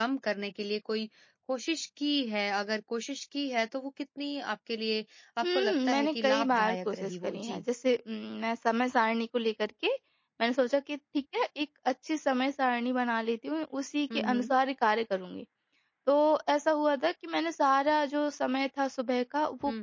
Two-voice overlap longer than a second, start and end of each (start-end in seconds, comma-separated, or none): 5.4-7.6